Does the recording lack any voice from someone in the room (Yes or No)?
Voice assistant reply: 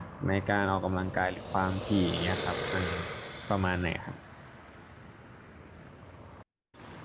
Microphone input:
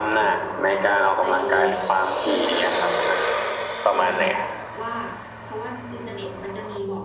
No